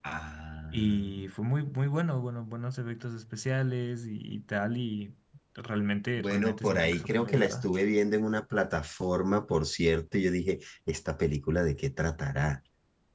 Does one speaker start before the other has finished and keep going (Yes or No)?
Yes